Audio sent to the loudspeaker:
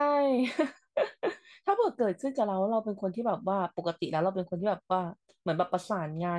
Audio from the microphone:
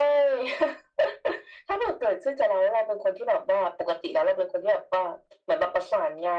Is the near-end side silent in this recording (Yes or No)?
Yes